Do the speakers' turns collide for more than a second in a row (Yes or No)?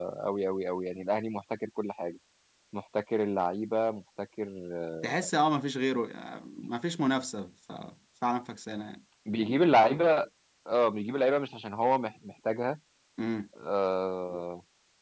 No